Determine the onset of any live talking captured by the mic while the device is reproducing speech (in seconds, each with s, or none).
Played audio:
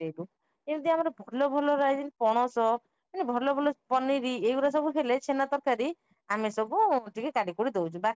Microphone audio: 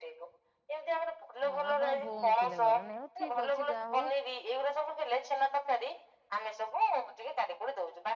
1.5 s